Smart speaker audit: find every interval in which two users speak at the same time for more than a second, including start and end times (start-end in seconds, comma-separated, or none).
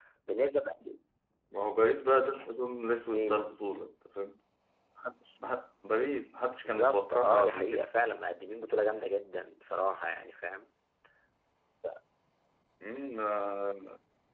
6.6-7.9